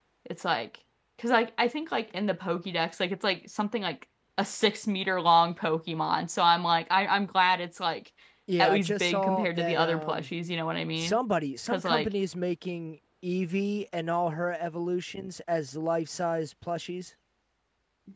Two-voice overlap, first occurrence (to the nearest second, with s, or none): 9 s